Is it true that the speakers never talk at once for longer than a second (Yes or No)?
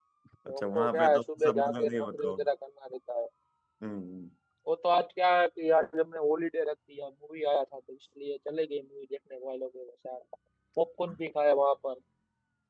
No